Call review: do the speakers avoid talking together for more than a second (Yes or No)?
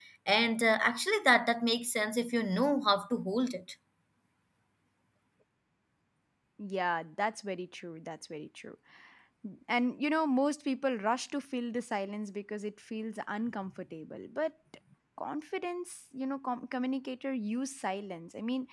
Yes